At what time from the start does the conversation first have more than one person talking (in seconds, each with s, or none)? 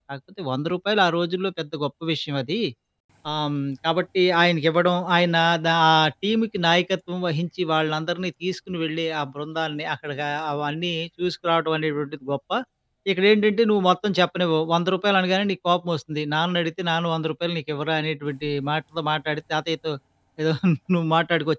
none